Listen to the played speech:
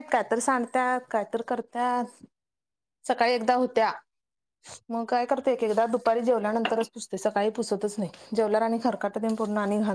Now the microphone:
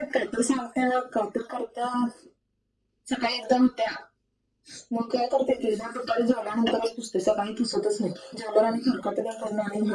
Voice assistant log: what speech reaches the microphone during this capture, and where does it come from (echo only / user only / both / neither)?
echo only